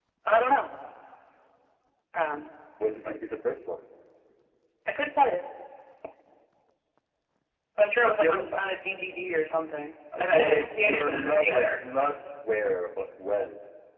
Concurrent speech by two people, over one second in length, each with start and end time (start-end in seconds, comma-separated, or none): 10.2-11.8